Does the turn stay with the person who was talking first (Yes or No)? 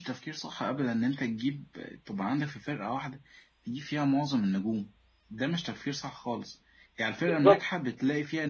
Yes